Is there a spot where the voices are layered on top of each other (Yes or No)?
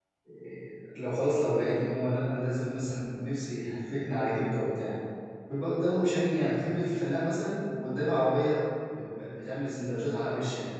No